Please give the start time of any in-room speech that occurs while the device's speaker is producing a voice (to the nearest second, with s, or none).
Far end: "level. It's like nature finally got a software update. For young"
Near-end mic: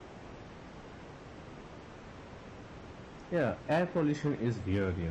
3 s